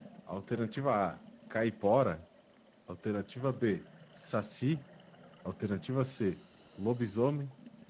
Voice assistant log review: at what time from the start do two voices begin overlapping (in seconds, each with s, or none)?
none